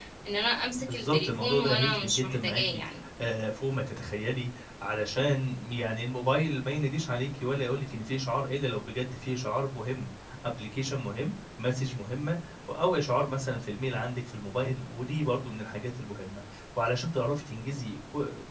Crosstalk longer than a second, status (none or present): present